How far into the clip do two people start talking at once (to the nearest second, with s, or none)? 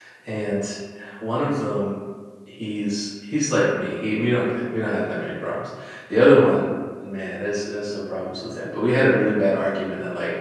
none